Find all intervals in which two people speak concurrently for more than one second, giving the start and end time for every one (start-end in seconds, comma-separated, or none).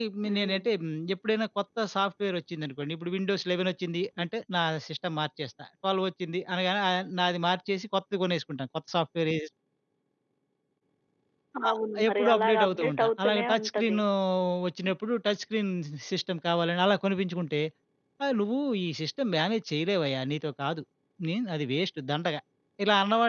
12.1-14.0